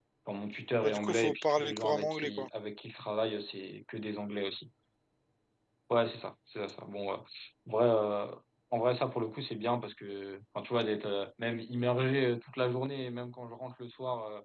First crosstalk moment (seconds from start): 1 s

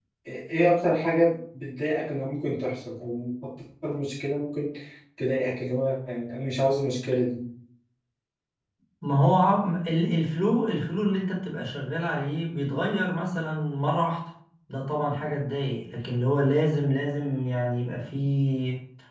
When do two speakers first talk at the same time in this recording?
none

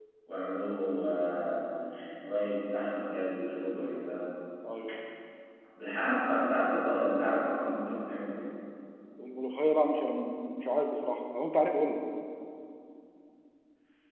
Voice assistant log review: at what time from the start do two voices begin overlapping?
none

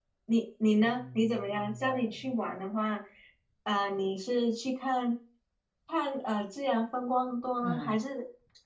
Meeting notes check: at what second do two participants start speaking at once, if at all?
1 s

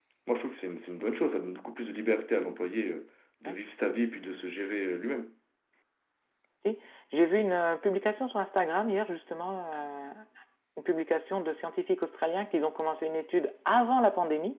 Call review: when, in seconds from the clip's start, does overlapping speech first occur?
none

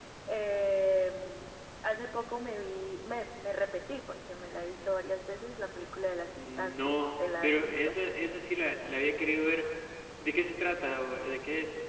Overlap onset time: 6 s

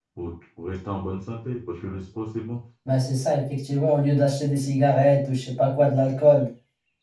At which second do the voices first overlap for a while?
none

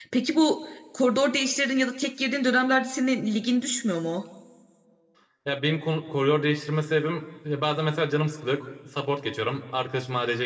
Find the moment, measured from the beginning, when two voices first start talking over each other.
none

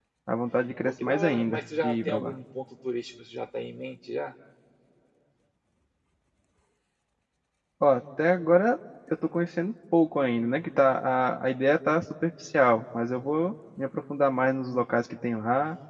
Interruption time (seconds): 1 s

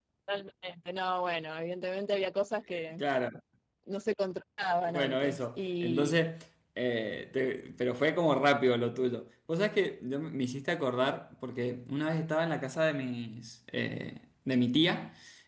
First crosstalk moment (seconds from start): 5 s

